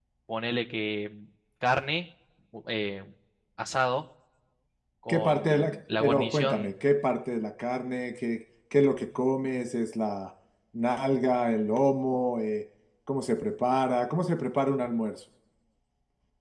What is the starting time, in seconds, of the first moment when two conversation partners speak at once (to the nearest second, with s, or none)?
5 s